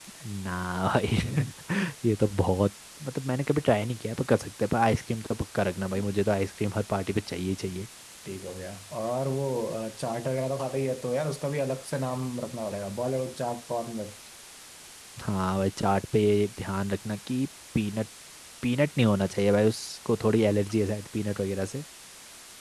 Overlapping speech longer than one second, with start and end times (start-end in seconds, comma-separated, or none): none